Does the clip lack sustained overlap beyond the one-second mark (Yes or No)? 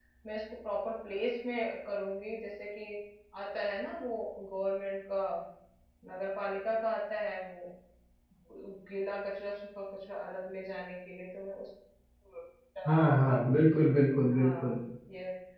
Yes